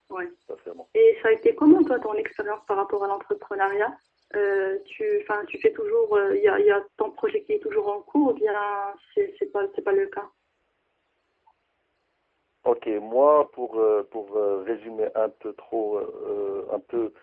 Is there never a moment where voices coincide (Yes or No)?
Yes